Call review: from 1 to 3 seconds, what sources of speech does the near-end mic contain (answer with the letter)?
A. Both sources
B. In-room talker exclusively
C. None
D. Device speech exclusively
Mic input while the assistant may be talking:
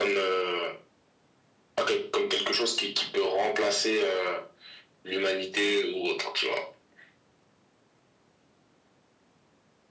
D